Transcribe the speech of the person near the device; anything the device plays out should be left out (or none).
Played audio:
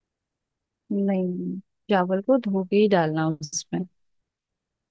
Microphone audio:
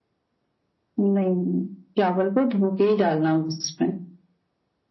none